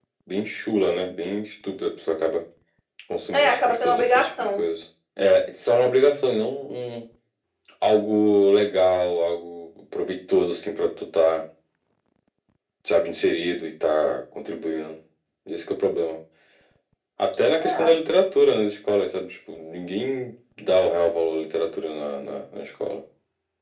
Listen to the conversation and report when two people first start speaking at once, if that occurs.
3.3 s

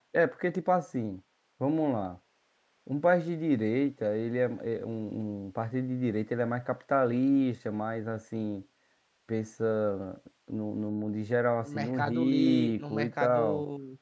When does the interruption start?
11.7 s

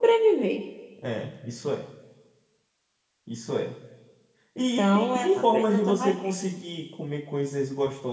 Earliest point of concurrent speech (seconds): 4.8 s

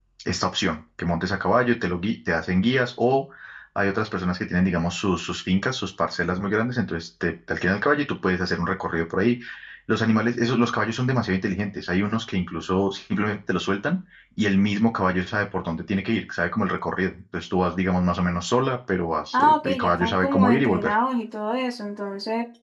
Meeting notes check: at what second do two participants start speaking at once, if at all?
19.3 s

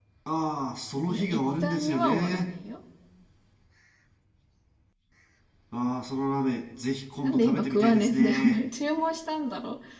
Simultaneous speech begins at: 1.1 s

